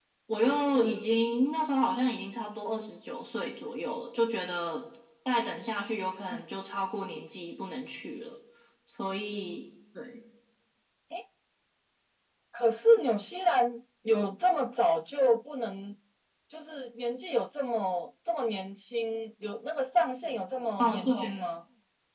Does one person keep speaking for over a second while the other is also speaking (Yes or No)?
No